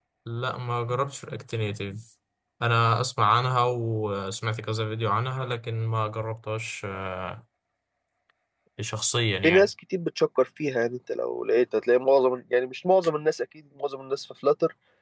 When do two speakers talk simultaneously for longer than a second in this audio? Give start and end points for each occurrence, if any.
none

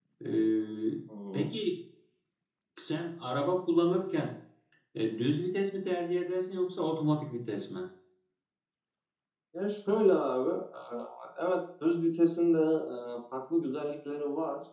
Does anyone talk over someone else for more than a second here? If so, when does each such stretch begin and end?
none

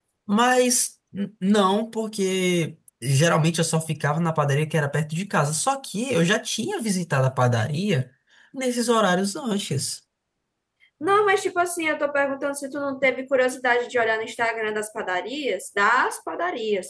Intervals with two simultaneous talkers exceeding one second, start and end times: none

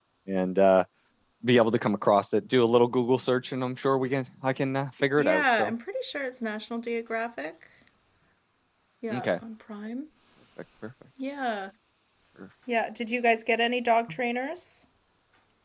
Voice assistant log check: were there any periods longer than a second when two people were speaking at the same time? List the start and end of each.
none

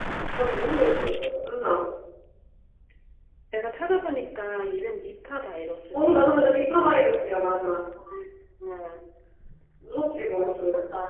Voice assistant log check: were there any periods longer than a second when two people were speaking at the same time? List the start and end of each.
none

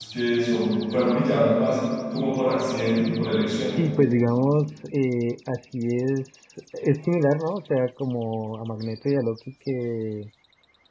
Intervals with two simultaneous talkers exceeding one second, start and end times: none

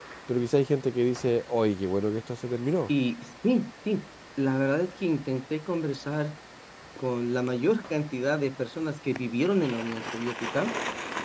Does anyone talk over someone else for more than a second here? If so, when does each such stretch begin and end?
none

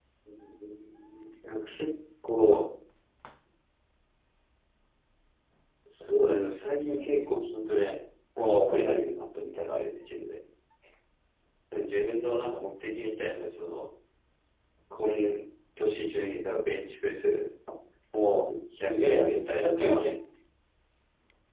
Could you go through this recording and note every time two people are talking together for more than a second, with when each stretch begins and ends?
18.9-20.1

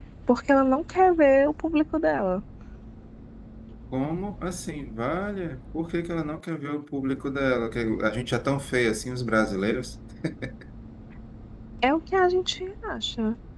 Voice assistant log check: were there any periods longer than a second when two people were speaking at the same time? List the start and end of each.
none

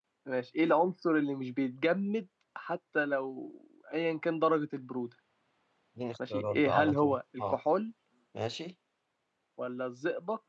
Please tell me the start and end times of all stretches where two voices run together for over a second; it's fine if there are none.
6.3-7.6

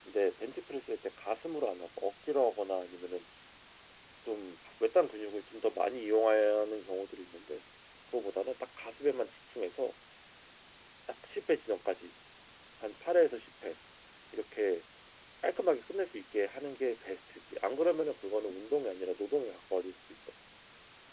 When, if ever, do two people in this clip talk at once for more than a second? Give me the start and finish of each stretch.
none

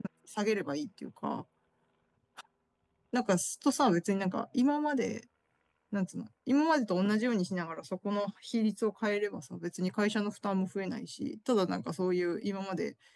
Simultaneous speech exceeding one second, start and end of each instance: none

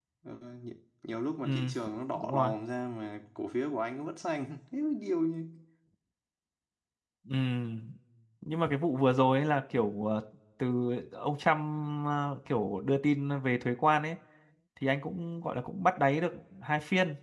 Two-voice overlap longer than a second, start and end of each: none

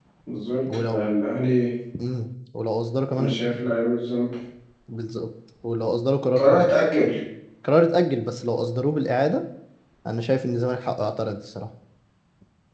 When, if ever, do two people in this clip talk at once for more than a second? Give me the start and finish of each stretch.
none

